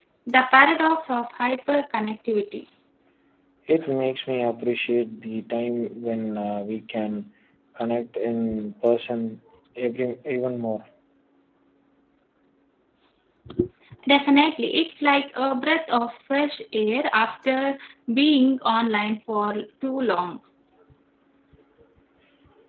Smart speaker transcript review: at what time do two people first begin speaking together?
none

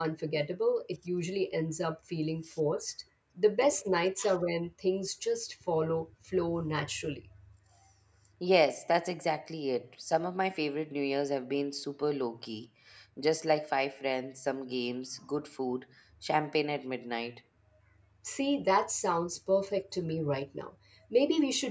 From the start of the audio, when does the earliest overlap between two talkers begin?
none

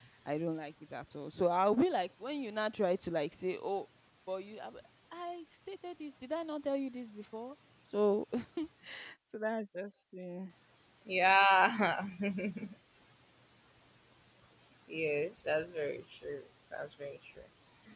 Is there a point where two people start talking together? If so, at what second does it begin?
none

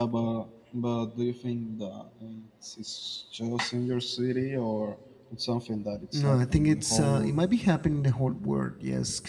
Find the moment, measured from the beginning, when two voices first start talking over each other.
6.1 s

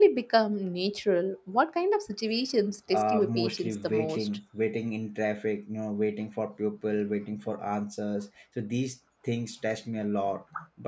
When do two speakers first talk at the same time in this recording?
2.9 s

